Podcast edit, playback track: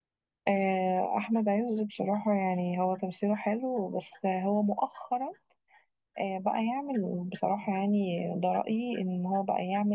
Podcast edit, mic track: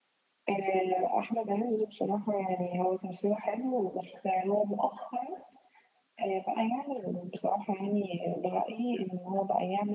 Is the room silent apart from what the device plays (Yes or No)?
Yes